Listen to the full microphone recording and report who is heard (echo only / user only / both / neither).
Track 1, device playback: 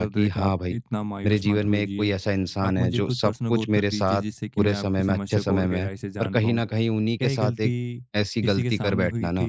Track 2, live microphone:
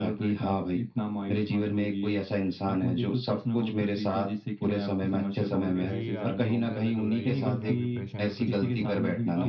both